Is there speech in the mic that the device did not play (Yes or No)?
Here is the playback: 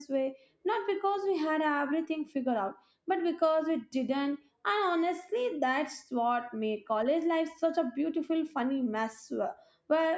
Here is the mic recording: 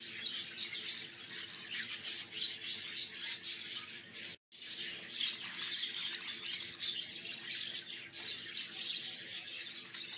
No